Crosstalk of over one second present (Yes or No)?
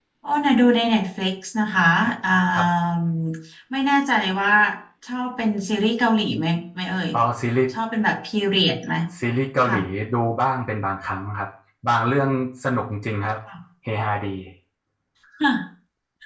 No